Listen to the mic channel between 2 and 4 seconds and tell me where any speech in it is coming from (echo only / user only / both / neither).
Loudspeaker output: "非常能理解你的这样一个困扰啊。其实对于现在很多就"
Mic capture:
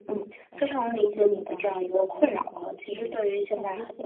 both